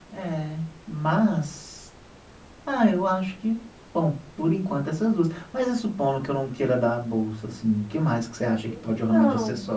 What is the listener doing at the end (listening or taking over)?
taking over